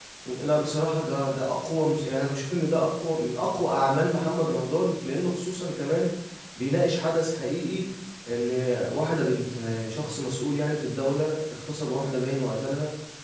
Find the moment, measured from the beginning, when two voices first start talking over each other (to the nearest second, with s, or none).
none